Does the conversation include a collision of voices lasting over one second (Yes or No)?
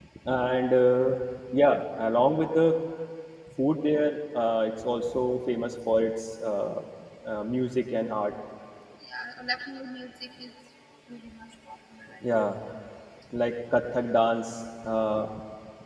No